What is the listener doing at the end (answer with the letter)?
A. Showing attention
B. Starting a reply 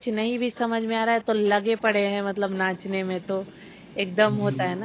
A